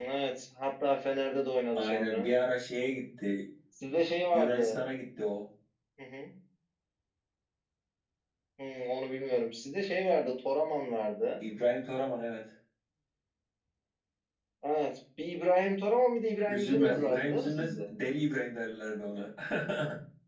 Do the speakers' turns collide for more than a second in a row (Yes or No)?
Yes